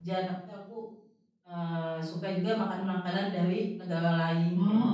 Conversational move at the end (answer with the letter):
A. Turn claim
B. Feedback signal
A